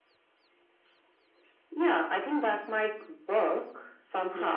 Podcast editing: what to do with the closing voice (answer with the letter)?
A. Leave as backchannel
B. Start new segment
A